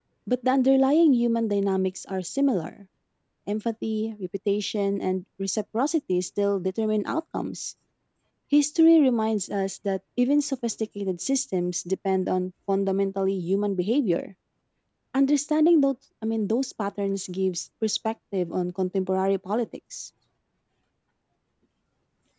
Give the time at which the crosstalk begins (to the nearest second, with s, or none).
none